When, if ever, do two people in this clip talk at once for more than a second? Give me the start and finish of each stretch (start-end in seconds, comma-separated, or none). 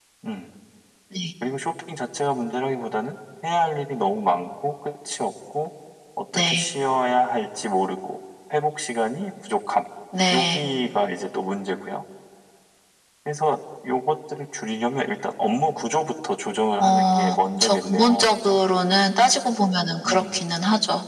16.8-18.6